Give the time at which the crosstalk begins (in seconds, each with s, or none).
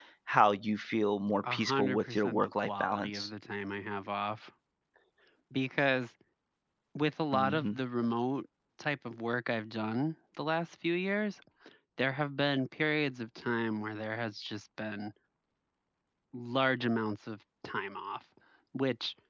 1.5 s